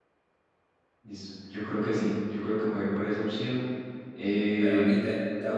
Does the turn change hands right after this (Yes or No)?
Yes